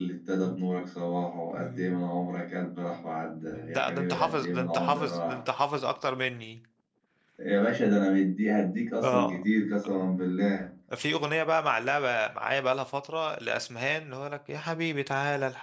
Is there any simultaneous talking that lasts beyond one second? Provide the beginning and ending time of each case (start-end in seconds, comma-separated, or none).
3.7-5.4